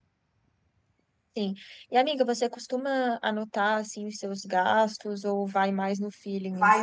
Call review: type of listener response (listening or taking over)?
taking over